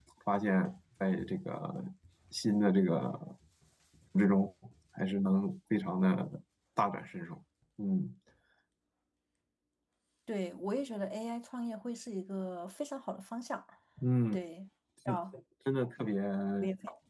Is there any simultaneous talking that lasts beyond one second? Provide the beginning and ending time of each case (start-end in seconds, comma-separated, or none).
none